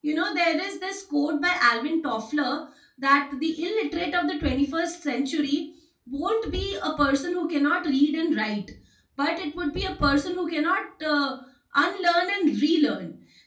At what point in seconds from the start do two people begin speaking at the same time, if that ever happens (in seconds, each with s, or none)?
none